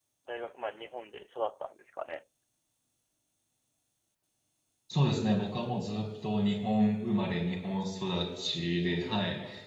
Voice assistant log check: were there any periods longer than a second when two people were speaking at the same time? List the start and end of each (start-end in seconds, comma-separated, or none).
none